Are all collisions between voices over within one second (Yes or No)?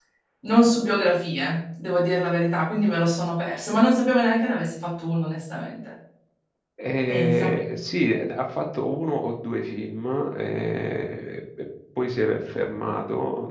Yes